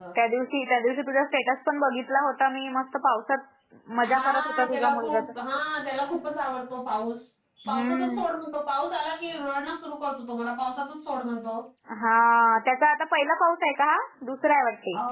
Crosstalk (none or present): present